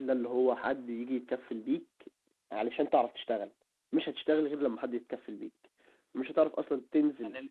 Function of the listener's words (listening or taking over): listening